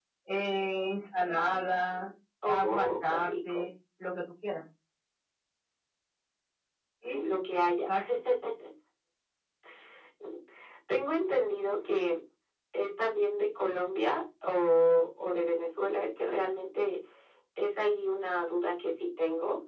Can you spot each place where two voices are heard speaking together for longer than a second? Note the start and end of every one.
2.5-3.7

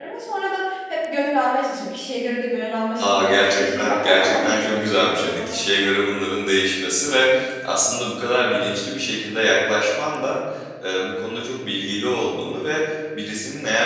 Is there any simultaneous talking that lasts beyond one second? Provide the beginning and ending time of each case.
3.0-5.6

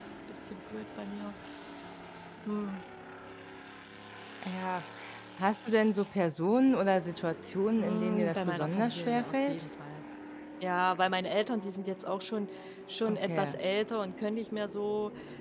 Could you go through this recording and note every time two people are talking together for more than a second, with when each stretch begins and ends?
7.8-9.6

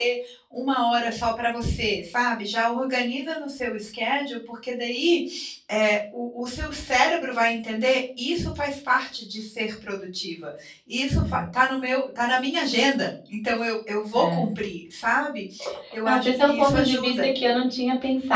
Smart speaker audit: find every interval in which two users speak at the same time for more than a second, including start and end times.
16.0-17.2

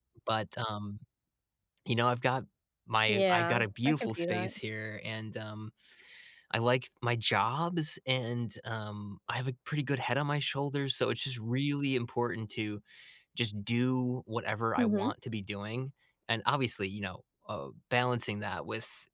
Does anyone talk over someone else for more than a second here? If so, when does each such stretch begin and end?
3.1-4.5

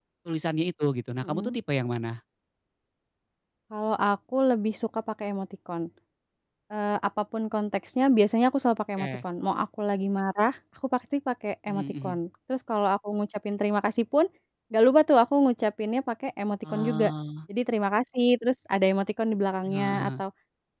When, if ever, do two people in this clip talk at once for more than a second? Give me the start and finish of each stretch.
none

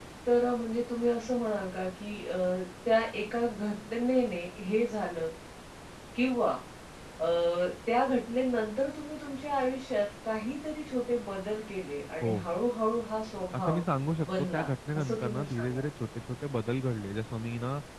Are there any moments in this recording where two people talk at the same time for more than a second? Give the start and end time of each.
14.3-15.8

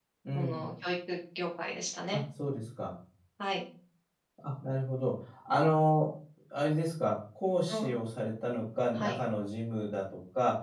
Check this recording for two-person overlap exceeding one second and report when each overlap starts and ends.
none

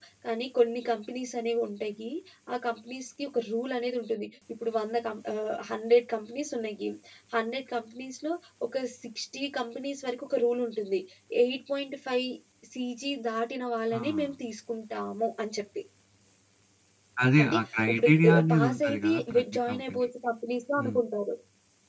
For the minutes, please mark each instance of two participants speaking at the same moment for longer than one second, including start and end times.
17.4-20.1

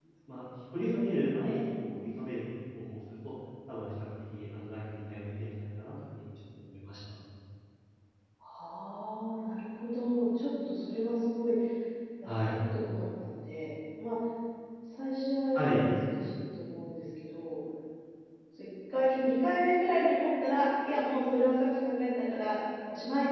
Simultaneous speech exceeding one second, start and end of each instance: none

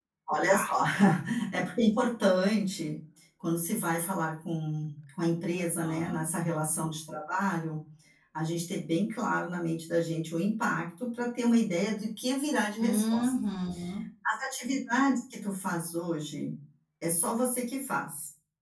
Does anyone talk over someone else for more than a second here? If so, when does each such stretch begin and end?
none

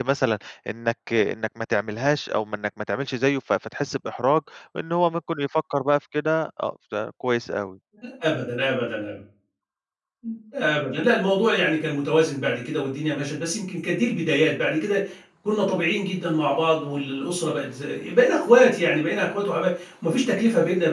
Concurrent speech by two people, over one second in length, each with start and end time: none

